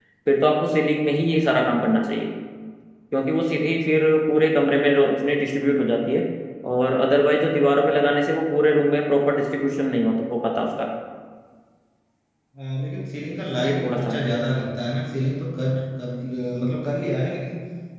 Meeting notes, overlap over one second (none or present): none